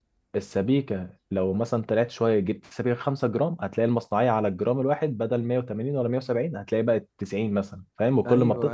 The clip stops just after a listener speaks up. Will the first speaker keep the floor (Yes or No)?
No